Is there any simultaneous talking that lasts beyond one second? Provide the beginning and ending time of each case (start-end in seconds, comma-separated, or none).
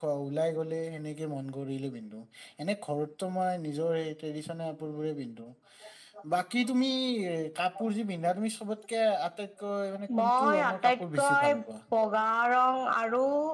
10.2-11.5